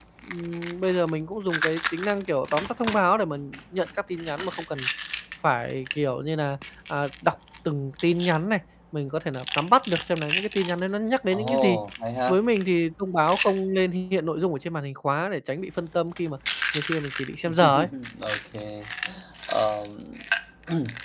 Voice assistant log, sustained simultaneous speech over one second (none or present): none